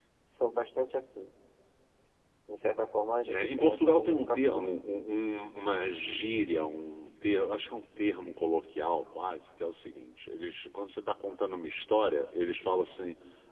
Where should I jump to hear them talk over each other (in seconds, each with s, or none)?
3.3 s